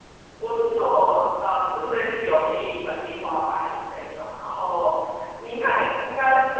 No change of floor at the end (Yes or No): No